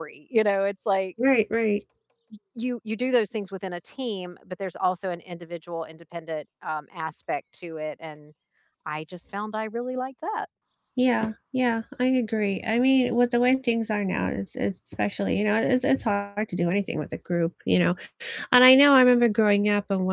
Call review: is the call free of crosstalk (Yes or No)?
Yes